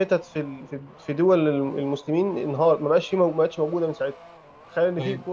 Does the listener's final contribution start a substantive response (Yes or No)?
No